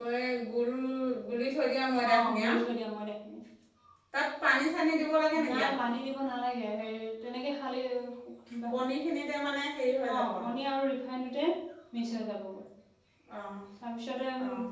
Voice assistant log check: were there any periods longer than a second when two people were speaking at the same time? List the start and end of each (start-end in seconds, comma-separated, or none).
none